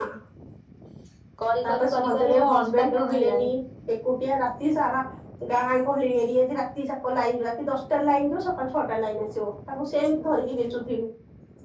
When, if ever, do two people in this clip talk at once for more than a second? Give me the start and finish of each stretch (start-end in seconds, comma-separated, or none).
1.6-3.5